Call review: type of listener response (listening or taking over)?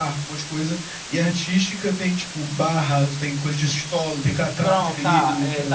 taking over